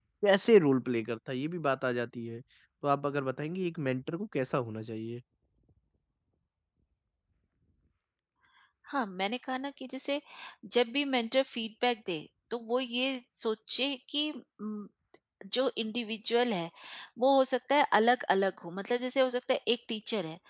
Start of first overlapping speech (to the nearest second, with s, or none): none